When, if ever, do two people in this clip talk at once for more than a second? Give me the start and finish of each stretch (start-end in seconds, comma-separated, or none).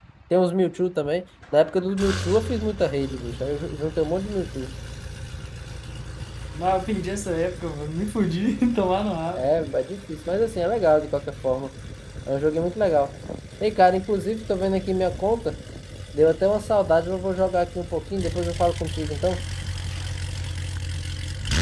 none